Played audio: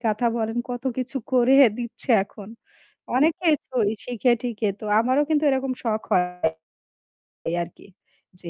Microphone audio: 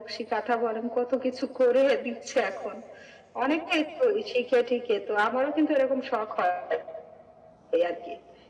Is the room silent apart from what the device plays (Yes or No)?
Yes